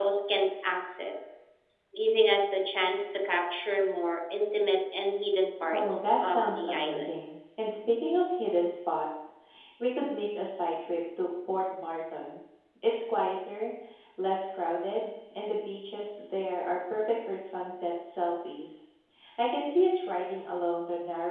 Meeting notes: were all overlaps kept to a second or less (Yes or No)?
No